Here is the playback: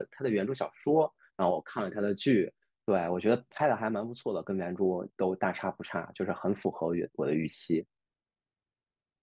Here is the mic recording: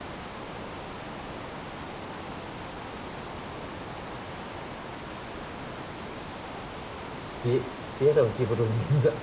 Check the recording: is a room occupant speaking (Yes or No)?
Yes